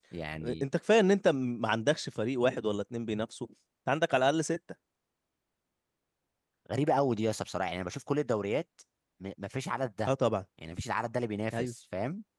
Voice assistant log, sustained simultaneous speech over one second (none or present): none